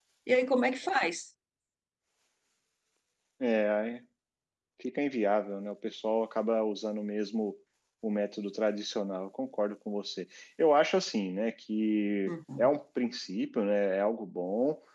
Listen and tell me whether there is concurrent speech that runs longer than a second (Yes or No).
No